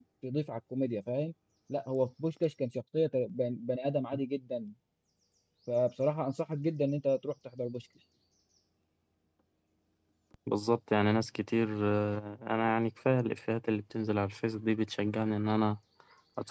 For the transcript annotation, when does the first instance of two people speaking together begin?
none

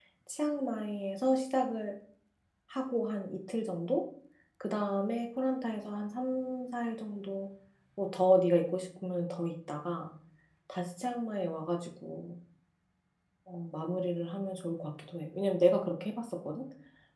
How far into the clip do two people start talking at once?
none

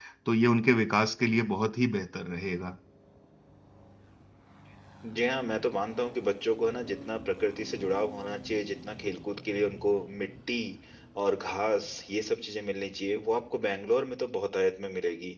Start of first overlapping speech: none

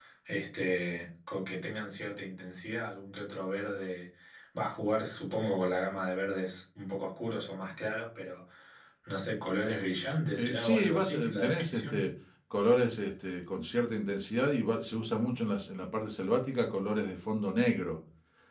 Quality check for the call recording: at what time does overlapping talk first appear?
10.3 s

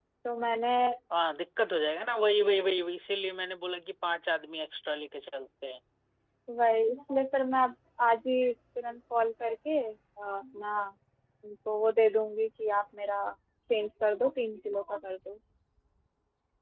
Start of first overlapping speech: none

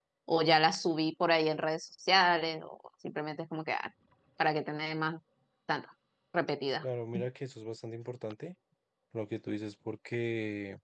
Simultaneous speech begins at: none

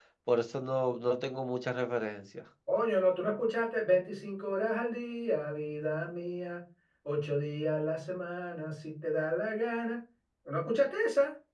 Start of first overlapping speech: none

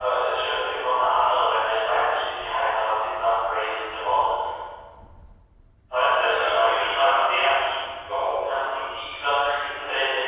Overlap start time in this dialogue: 6.3 s

